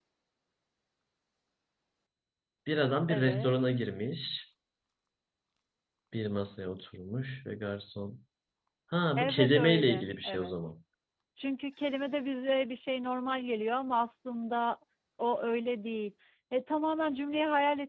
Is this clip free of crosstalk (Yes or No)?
No